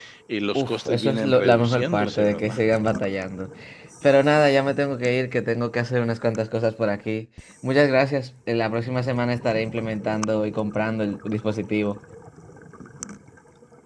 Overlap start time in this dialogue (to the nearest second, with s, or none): 1 s